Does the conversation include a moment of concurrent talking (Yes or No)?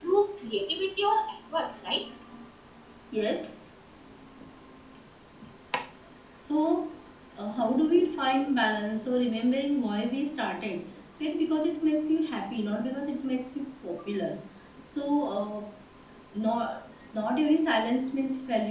No